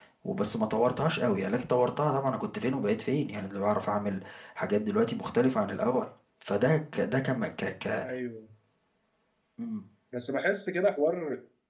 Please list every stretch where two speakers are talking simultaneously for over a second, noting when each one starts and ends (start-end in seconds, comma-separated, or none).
none